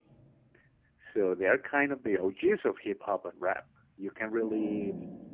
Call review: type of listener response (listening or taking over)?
listening